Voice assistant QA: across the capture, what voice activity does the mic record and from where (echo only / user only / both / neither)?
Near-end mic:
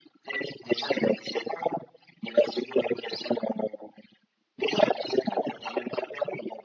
echo only